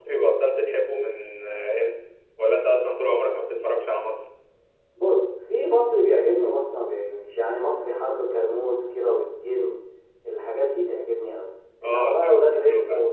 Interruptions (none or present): present